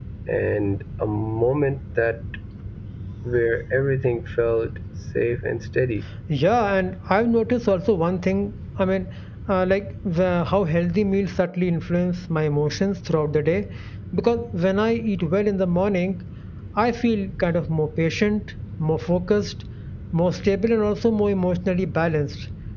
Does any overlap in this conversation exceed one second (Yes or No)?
No